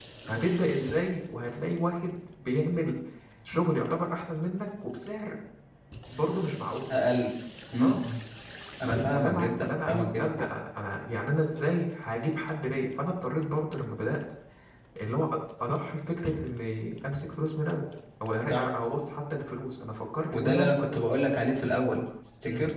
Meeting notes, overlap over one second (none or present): present